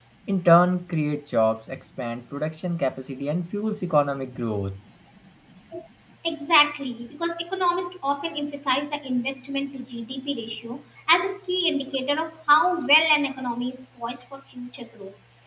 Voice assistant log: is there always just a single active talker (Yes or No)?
Yes